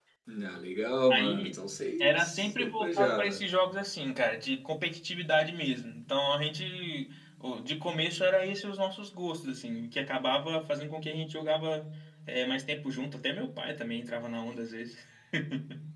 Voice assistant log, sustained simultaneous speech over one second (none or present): present